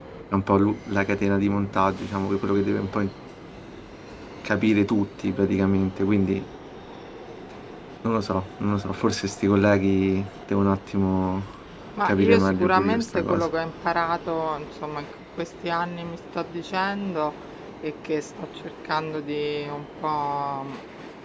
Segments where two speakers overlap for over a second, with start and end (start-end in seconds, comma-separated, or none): 12.1-13.5